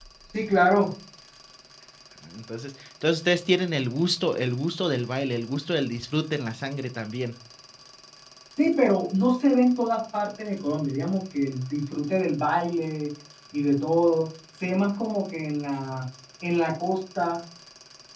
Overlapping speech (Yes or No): No